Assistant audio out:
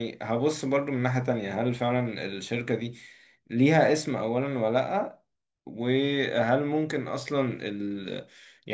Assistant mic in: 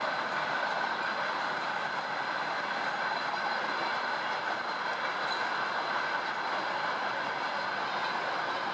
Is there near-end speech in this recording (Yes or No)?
No